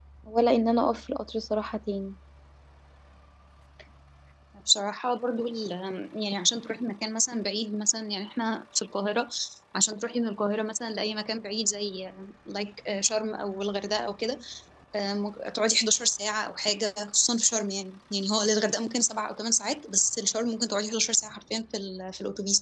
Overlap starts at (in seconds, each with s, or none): none